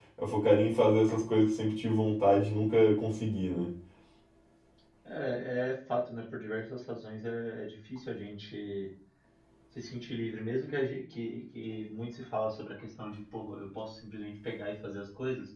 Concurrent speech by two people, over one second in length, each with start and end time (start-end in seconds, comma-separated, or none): none